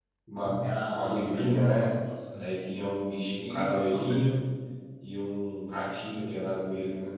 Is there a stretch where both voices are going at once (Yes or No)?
Yes